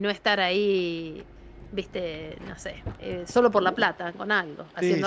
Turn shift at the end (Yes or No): Yes